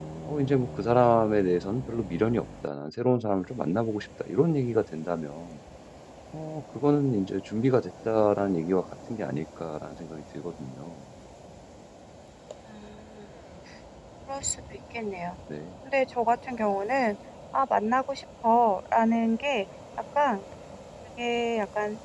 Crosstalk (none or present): none